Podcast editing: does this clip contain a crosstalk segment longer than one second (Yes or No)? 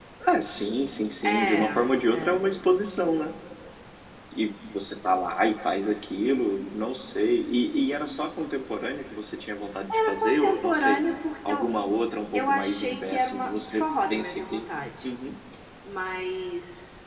Yes